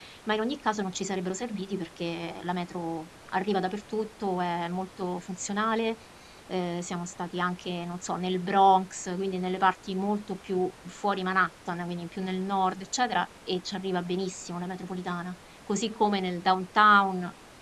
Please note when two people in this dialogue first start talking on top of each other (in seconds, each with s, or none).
none